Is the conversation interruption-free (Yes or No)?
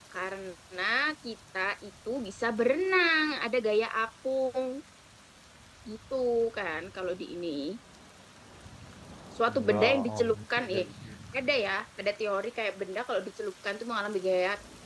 No